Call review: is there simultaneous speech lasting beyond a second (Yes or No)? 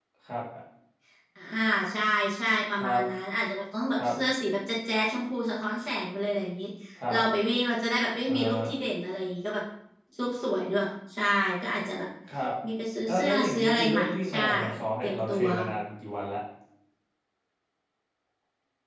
Yes